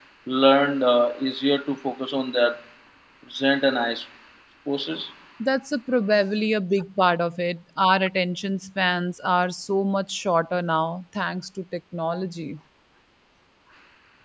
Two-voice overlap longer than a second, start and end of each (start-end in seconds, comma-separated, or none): none